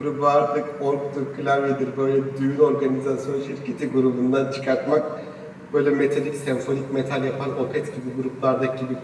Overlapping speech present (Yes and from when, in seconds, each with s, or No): No